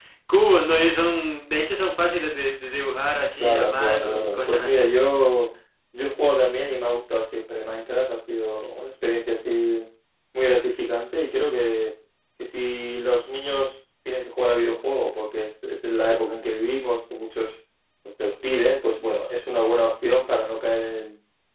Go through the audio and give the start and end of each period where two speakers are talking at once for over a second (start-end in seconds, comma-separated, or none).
3.3-4.9